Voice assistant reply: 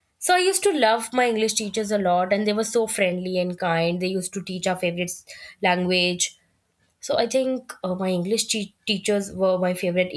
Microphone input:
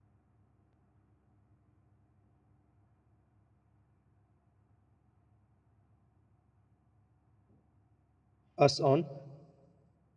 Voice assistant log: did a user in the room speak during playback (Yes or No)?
Yes